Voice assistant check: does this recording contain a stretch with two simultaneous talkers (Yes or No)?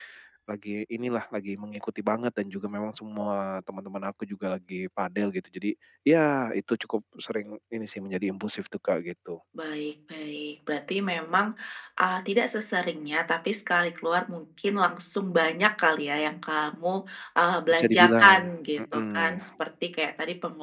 Yes